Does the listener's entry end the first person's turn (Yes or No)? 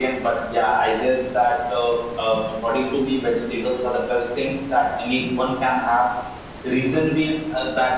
No